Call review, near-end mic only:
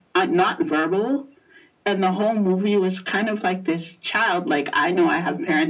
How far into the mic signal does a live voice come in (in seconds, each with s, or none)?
none